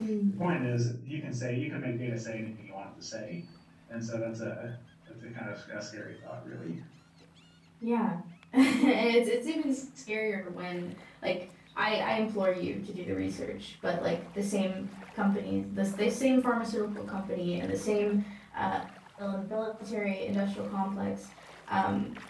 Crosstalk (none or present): none